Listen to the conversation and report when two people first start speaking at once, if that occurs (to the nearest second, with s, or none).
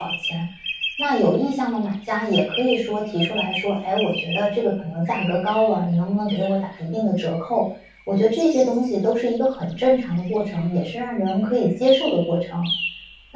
none